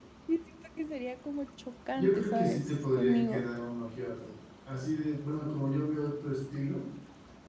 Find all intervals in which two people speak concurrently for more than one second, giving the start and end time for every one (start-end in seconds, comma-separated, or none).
2.0-3.5